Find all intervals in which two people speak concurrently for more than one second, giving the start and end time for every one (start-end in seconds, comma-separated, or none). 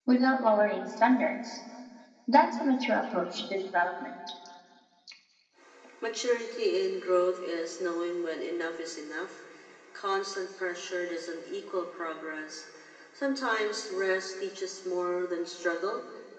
none